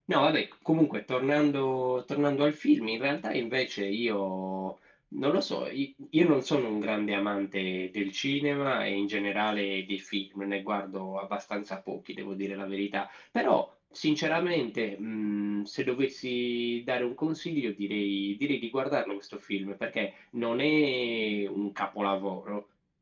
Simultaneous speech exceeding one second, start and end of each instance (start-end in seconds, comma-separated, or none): none